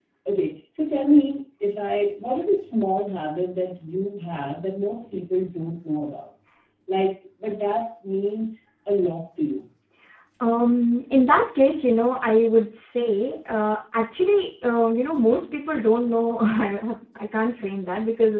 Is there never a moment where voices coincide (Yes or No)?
Yes